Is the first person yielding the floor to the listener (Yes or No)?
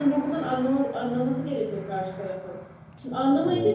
No